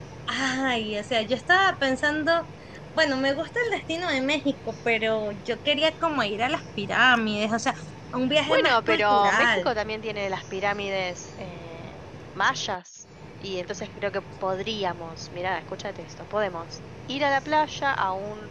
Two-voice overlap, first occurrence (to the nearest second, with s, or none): 8 s